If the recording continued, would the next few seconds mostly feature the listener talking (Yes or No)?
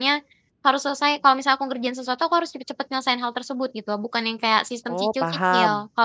No